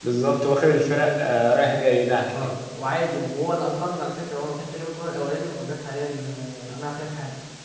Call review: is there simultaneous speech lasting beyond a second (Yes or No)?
No